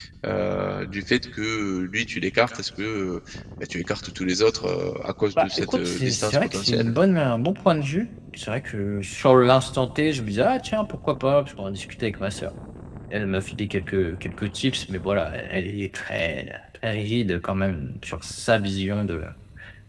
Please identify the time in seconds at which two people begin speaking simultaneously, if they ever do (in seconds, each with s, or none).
5.4 s